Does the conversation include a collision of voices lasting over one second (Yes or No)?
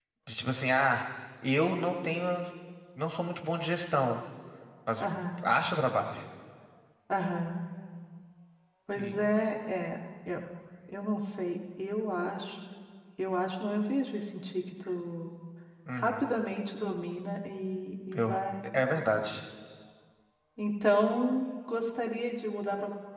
No